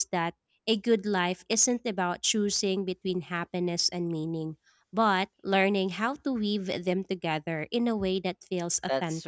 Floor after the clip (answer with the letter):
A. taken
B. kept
A